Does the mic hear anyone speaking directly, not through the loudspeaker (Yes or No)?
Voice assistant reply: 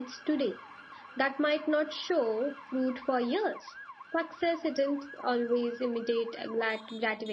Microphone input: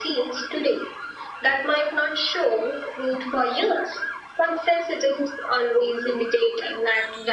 No